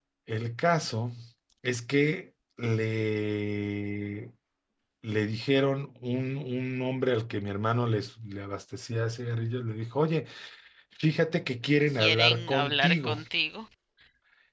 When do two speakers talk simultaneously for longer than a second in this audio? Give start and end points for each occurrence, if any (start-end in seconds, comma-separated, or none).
11.9-13.2